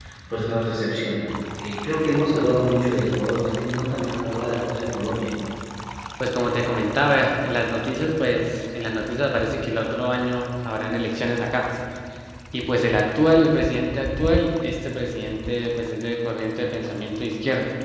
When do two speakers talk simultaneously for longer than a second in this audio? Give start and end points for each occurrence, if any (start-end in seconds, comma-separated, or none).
none